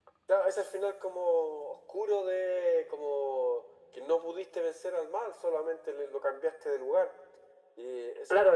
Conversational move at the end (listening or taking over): taking over